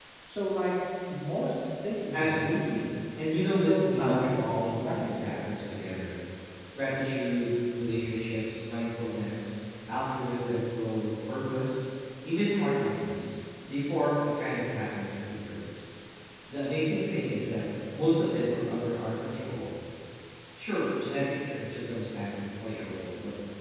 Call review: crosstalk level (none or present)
present